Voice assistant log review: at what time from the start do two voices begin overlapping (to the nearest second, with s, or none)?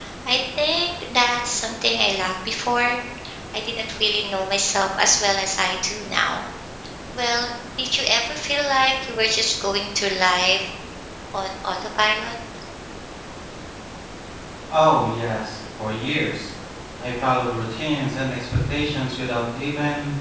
none